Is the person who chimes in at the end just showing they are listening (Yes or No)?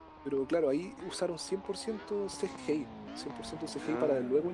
Yes